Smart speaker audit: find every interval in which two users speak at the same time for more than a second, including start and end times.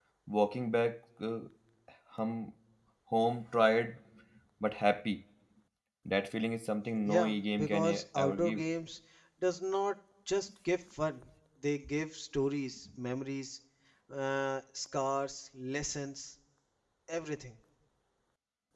7.1-8.6

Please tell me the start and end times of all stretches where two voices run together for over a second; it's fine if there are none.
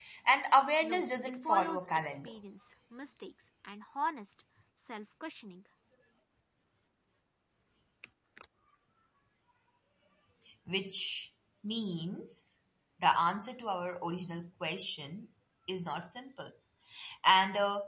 0.8-2.3

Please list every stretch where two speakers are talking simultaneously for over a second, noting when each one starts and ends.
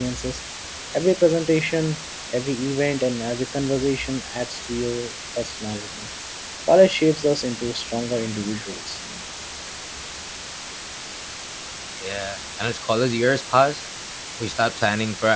none

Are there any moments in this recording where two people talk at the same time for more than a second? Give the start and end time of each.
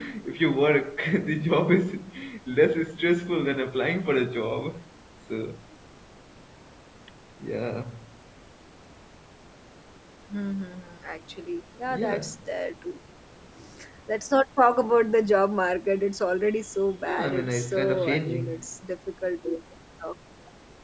17.0-18.6

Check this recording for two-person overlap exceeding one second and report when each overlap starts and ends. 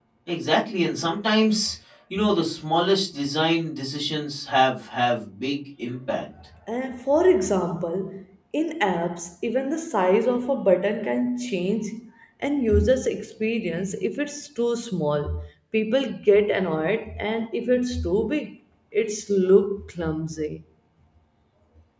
none

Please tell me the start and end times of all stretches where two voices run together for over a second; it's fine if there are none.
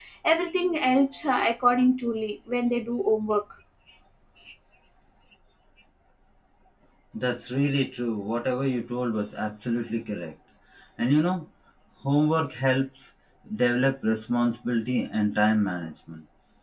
none

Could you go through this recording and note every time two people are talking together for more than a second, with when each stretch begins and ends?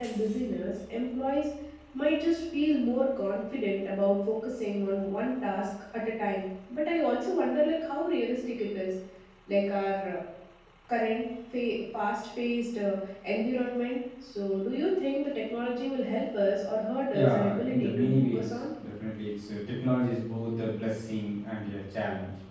17.1-18.5

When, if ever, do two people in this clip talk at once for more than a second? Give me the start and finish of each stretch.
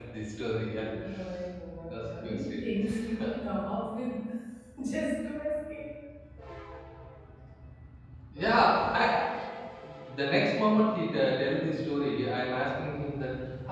1.8-3.3

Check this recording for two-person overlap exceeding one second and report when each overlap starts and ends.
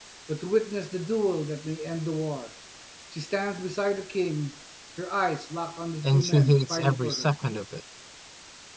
6.0-7.3

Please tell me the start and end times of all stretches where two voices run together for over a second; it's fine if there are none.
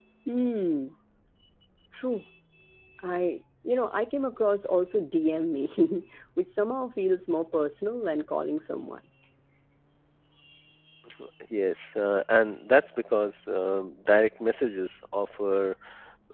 none

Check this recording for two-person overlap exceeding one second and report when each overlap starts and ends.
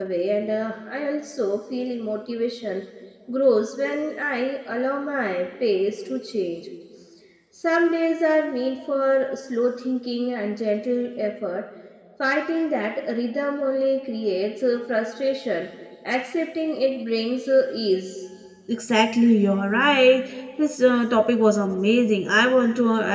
none

